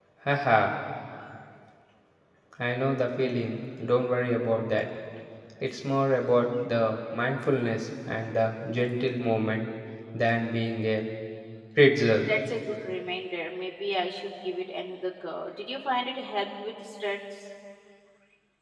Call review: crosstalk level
none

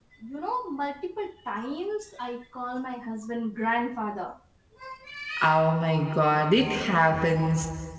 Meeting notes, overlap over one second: none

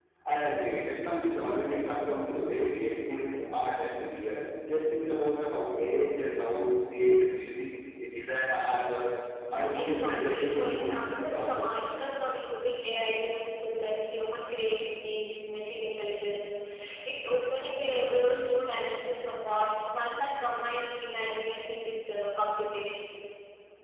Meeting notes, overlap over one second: present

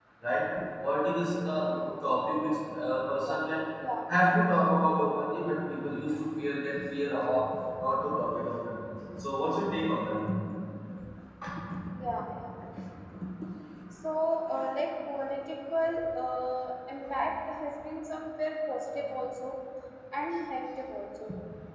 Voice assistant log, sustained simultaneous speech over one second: none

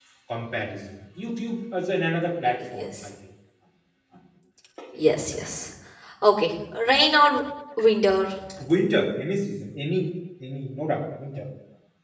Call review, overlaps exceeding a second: none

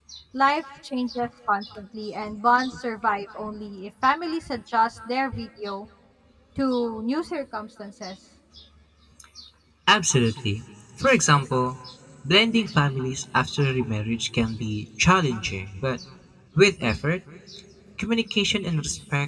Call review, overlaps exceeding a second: none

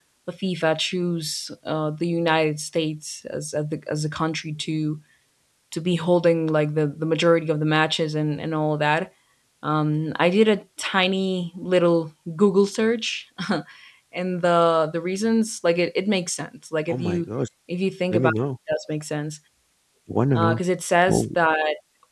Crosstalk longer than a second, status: none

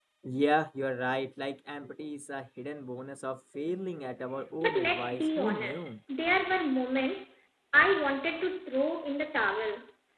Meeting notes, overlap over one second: present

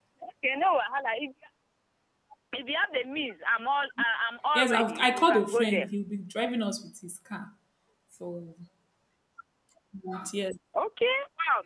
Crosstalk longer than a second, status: present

